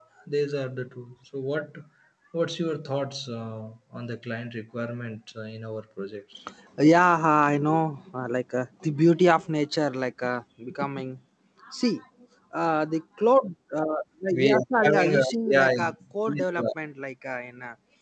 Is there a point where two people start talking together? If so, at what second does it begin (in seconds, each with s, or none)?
14.3 s